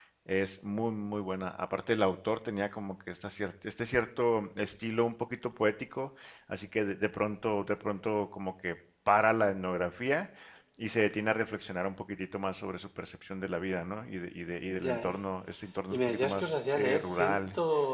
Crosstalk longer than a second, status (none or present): present